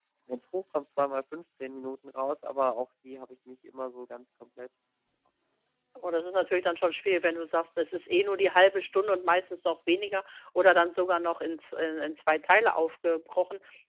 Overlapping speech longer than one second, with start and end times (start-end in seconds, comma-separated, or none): none